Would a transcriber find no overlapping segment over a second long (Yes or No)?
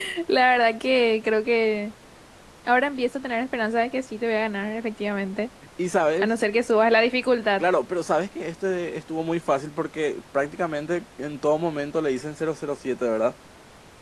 Yes